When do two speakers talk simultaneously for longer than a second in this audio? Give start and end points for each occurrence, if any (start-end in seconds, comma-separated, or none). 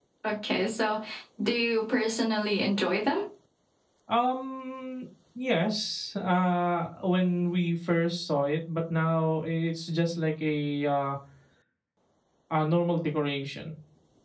none